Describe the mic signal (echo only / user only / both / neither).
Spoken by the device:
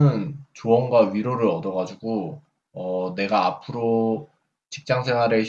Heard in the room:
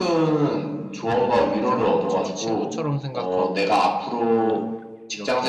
both